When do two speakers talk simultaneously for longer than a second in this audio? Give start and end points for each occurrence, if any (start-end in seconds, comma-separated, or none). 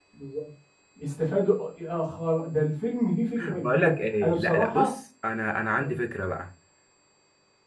3.4-5.0